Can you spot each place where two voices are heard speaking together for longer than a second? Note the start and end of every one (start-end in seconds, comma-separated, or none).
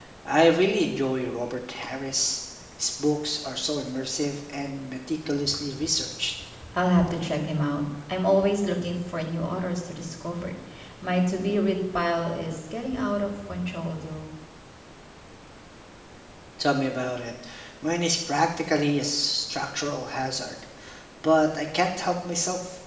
none